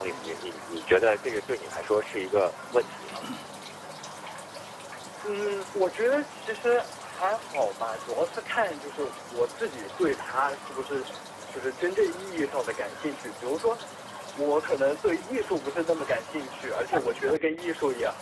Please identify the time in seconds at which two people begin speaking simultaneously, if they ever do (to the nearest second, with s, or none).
none